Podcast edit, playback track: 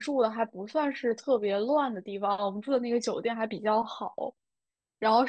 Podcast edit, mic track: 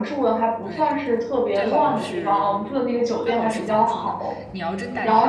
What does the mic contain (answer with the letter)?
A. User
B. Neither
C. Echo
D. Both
D